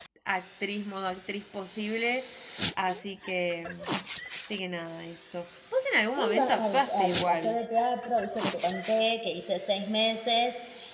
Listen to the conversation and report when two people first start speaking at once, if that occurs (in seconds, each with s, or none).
6.2 s